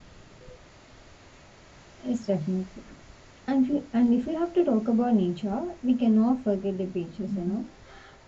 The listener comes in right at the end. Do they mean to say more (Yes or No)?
No